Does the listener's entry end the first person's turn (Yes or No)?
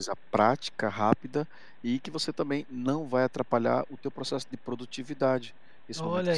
Yes